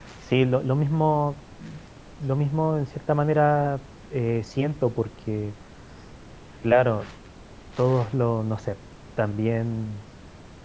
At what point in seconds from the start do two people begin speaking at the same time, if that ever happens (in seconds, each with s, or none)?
none